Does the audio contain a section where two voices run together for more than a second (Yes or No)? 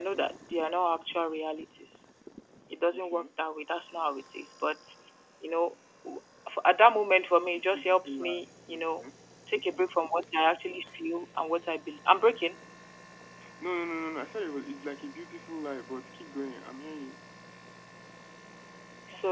Yes